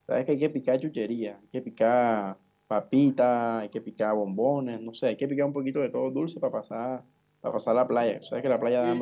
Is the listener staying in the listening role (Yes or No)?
No